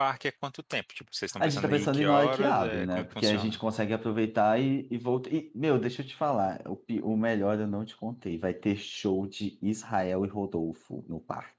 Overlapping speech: Yes, from 1.4 s

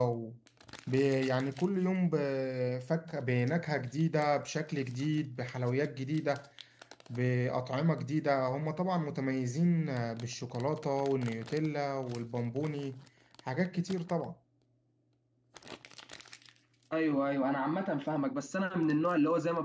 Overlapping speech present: No

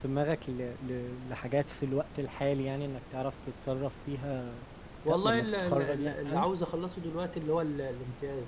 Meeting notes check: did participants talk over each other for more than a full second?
Yes, from 5.1 s

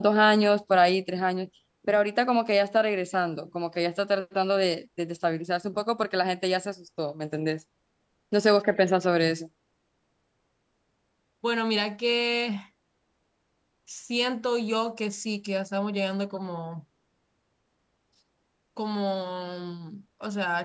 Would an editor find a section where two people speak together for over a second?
No

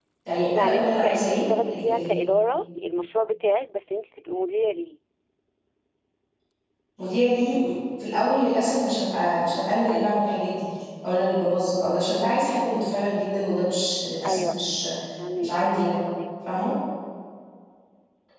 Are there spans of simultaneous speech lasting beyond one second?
Yes, from 0.6 s

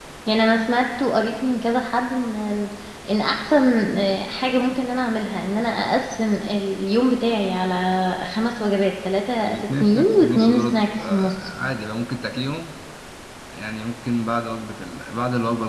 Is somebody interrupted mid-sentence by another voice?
Yes, from 9.4 s

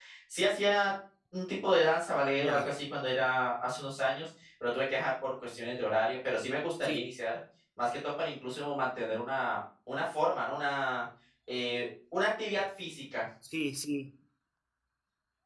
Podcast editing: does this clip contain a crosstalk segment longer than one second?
No

